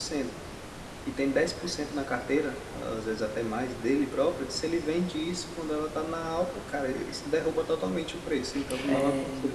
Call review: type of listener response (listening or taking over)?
taking over